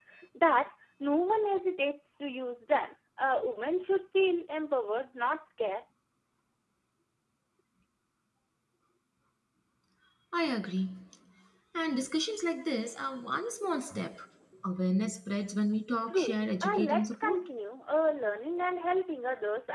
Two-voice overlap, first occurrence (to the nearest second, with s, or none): 16 s